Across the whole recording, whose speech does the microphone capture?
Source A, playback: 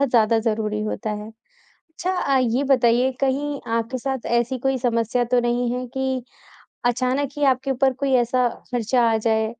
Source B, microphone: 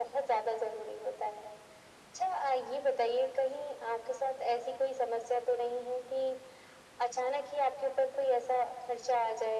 echo only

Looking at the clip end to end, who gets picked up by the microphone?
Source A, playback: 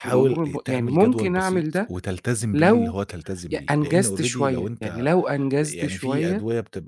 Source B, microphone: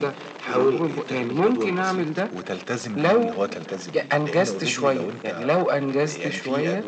echo only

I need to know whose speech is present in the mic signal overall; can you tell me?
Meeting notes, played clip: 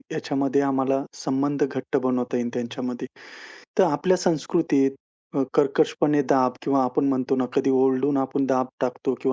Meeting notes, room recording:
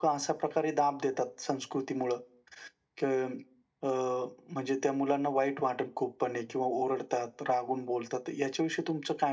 user only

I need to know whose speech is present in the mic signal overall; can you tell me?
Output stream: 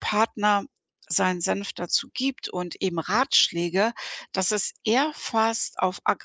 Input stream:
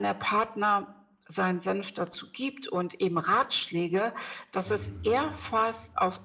both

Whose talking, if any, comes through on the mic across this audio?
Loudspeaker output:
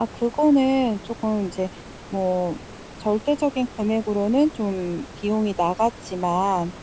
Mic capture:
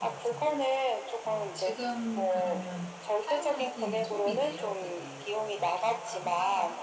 both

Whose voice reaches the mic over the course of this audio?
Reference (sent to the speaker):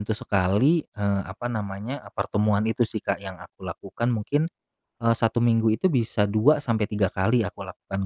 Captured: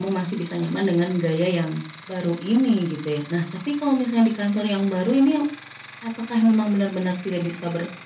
user only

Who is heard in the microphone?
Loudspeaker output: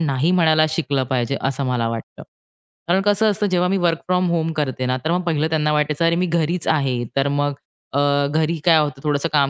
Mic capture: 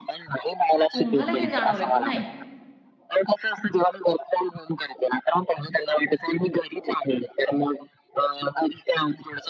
both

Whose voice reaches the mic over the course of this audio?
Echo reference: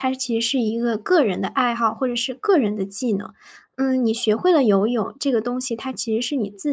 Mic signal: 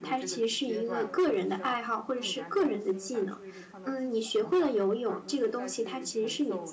both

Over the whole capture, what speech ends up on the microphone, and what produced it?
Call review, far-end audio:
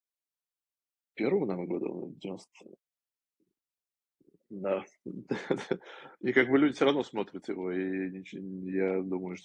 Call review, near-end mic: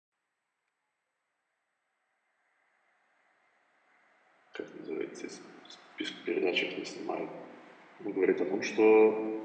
user only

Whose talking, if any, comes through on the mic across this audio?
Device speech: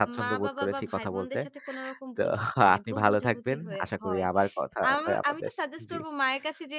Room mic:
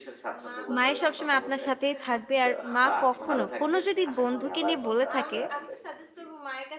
both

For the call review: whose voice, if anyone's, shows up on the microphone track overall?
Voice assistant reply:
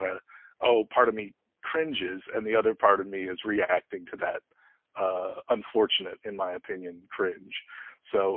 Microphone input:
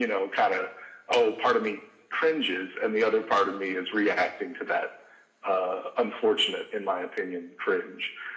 echo only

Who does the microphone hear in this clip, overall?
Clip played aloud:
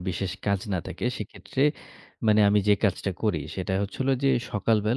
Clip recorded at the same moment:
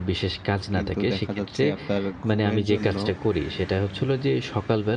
both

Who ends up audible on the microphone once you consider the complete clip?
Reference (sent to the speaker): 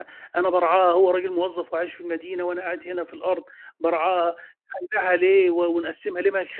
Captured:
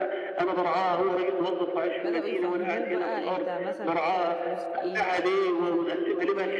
both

